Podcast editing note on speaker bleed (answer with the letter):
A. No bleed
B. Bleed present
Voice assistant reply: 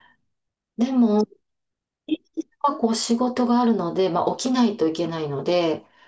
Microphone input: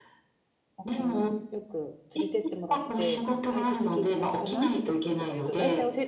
B